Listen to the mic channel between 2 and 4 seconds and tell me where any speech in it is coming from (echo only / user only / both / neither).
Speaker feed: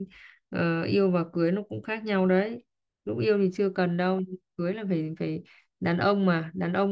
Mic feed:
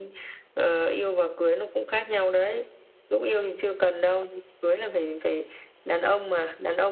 echo only